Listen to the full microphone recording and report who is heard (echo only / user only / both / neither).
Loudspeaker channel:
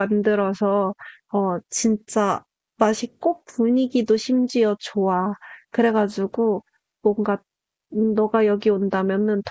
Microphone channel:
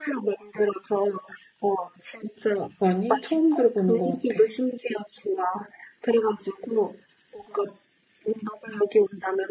both